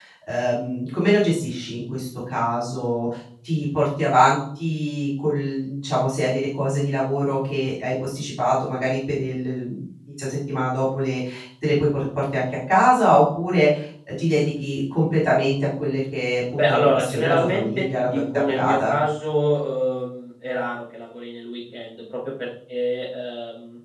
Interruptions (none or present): present